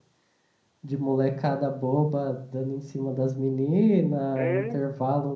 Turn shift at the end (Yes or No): No